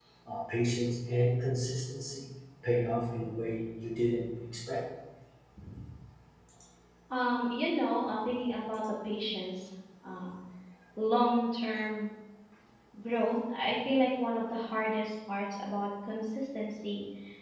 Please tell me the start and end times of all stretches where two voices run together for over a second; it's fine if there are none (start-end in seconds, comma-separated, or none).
none